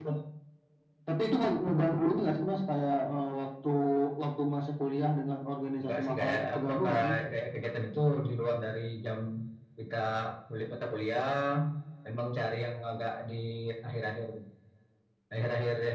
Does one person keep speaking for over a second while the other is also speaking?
Yes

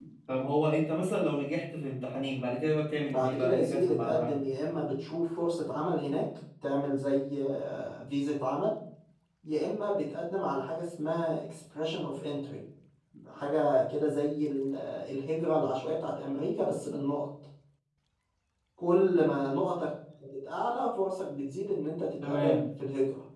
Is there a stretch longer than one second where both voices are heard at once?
Yes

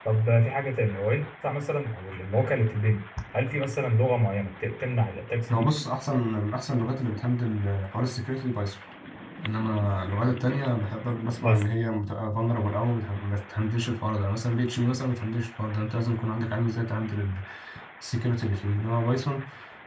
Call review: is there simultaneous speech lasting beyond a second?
No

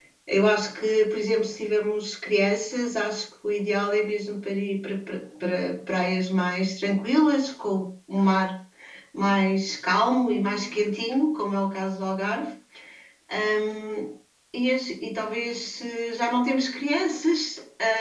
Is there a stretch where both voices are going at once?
No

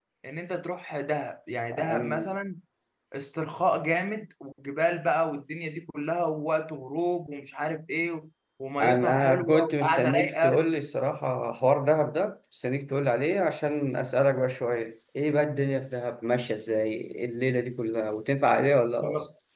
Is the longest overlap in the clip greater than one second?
Yes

